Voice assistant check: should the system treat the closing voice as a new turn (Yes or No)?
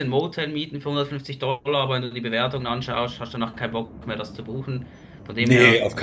Yes